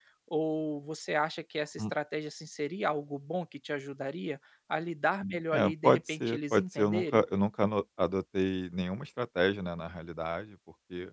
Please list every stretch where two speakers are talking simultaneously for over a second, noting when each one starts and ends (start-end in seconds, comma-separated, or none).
5.5-7.2